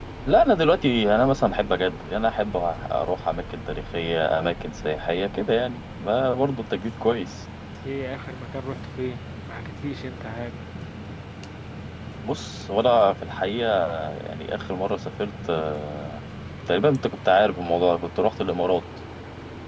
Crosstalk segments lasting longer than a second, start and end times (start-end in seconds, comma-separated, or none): none